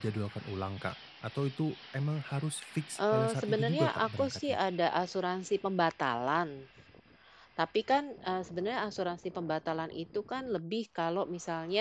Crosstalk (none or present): present